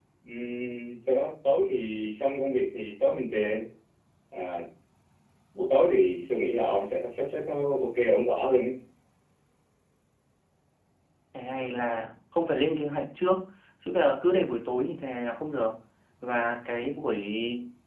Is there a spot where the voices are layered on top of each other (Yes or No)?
No